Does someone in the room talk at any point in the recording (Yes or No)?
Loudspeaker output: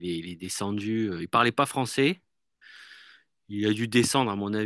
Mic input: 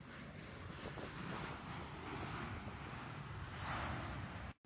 No